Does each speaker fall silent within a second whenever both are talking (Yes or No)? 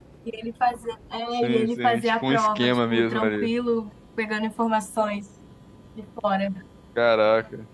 No